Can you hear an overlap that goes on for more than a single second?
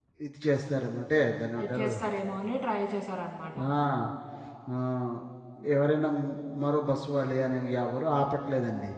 No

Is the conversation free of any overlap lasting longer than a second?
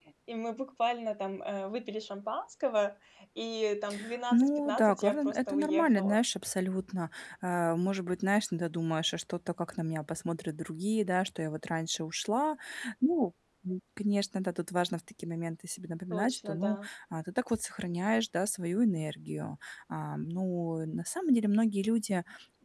No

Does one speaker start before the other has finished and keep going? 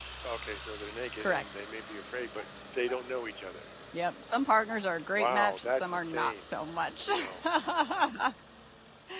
Yes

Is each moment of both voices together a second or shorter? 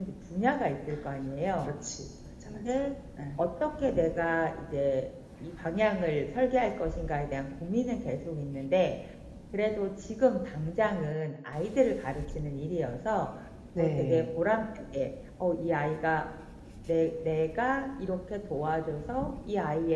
Yes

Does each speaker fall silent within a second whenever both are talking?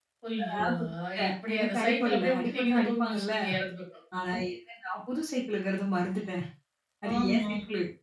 No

